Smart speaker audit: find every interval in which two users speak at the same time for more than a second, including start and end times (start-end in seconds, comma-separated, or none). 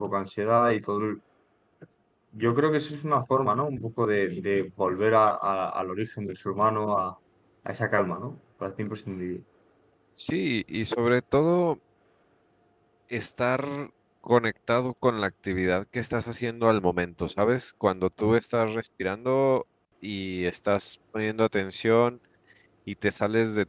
none